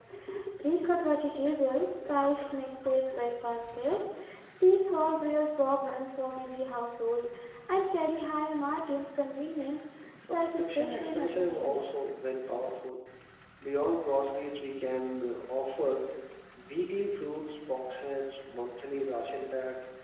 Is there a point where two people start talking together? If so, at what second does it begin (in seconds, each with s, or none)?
10.3 s